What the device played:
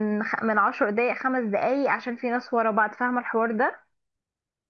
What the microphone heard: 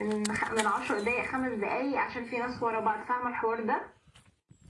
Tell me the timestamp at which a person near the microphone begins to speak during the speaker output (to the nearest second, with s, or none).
none